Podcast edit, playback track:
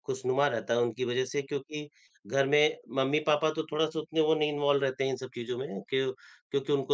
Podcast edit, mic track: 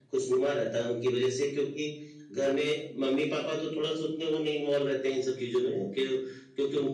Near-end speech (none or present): none